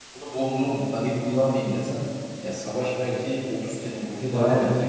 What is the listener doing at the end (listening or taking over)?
listening